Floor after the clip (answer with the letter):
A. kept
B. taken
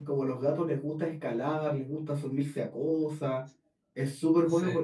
A